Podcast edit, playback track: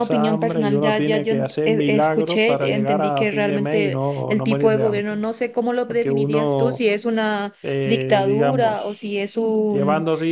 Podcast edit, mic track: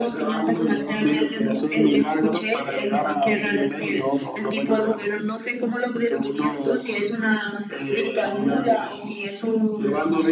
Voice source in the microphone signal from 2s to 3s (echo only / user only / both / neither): echo only